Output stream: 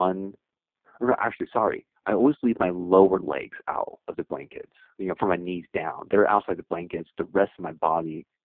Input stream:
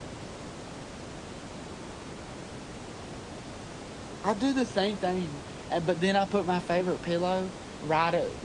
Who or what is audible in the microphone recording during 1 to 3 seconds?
neither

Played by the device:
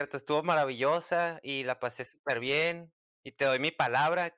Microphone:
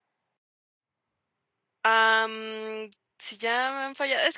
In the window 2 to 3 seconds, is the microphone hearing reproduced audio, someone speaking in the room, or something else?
user only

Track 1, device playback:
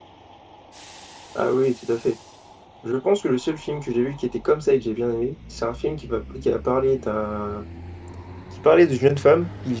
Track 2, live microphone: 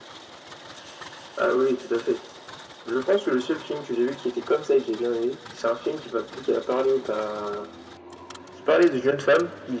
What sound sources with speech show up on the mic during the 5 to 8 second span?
echo only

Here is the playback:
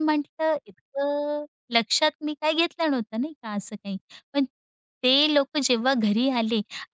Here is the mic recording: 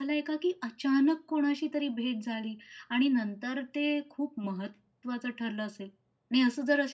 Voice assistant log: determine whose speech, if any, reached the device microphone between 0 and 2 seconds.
user only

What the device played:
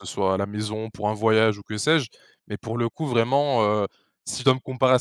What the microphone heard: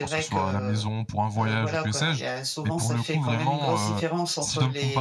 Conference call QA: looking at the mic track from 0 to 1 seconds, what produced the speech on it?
both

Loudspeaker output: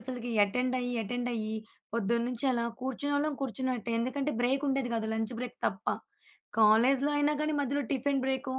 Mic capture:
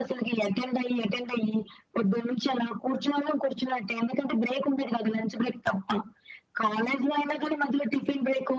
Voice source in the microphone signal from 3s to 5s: echo only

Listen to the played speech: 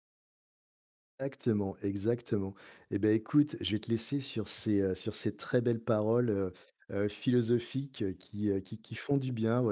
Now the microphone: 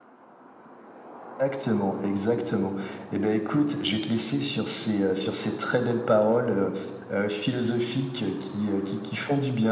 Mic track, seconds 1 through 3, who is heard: echo only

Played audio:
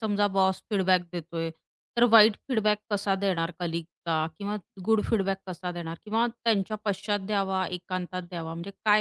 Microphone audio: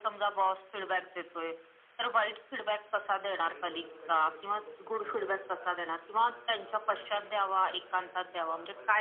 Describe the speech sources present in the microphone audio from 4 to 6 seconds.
both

